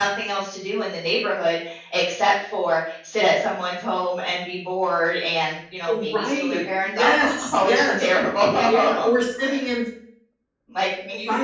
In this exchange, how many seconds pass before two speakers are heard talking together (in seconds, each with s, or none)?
6.0 s